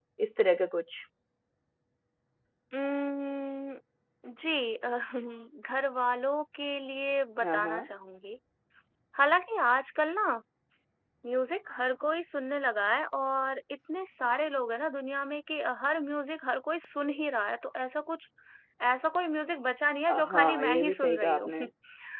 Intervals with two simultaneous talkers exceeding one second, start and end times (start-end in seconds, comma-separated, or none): 20.1-21.5